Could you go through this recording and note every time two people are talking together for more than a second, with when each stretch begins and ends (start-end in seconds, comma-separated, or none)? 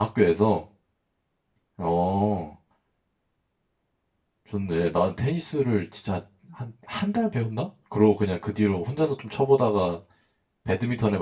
none